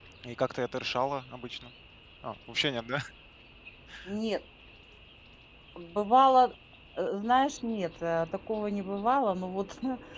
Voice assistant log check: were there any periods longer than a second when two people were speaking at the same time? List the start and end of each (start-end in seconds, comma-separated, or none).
none